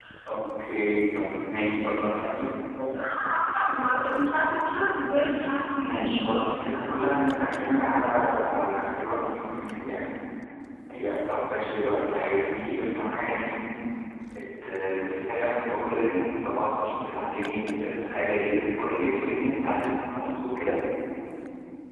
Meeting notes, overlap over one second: none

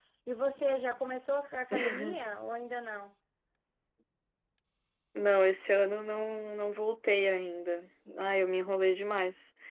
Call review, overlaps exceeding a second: none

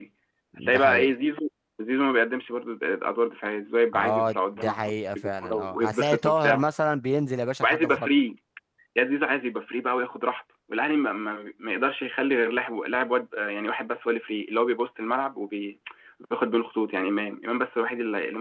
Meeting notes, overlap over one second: present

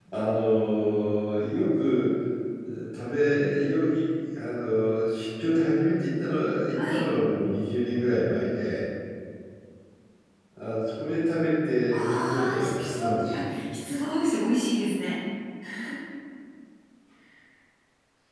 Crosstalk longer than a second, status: present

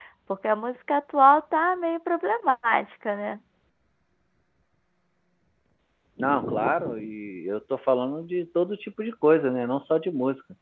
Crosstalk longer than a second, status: none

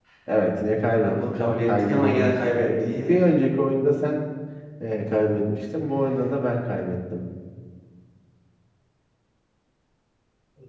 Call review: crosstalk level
present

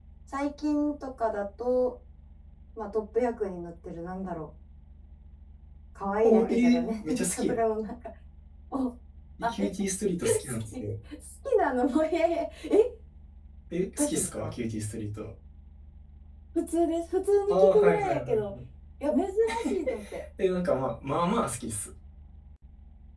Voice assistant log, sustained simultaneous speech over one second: present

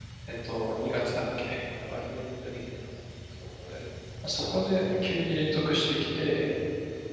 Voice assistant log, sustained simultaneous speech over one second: none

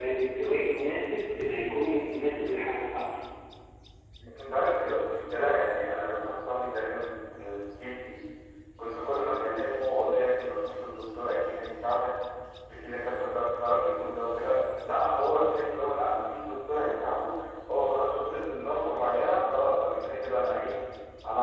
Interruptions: none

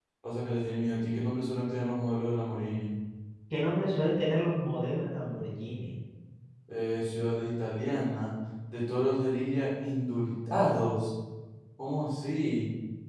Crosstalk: none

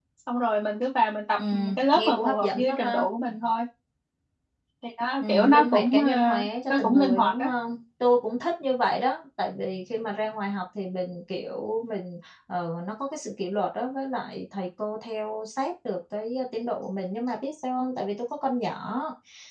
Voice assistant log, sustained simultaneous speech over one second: present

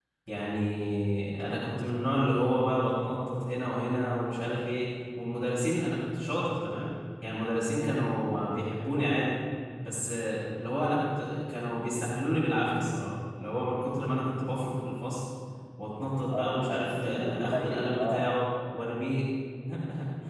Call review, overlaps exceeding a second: present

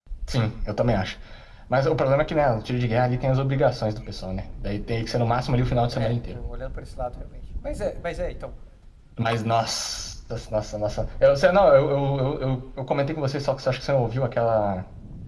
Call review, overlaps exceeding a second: none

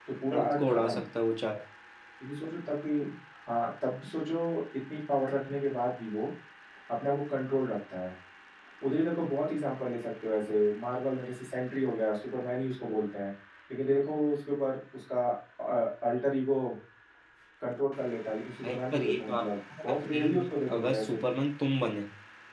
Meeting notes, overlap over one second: present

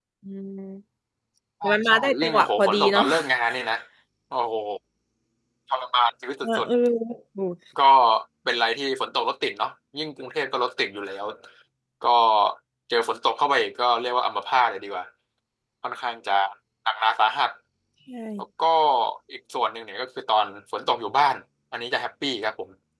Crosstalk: present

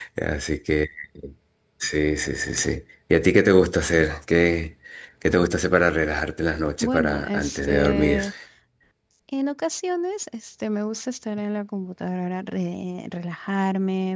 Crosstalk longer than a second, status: present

